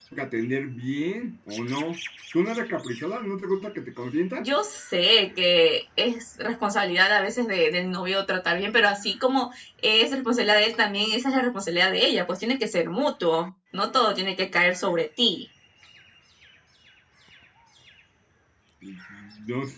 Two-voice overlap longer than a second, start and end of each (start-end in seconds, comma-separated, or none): none